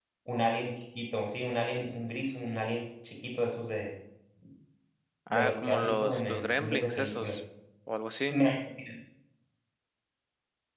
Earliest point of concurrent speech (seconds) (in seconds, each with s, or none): 5.3 s